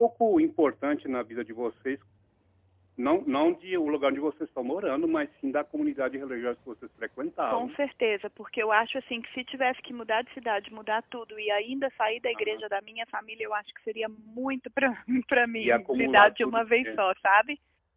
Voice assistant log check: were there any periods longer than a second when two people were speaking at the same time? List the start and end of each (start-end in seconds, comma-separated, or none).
15.6-17.0